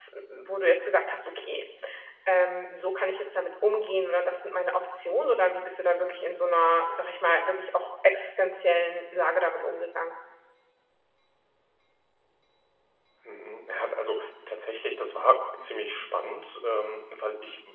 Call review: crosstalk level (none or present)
none